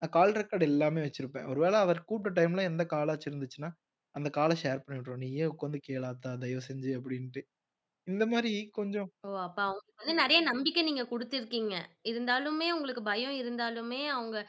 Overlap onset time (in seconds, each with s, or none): none